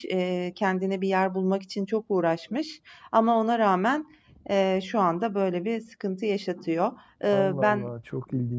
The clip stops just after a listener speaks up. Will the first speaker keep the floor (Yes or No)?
No